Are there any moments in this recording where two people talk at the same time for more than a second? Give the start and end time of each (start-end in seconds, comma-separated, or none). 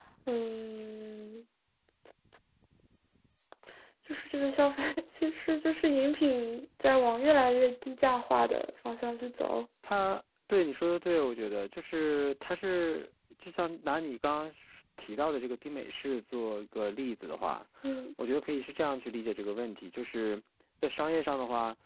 none